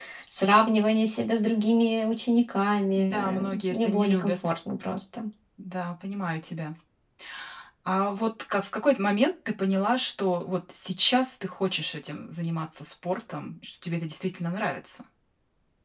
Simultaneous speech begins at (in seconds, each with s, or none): 3.0 s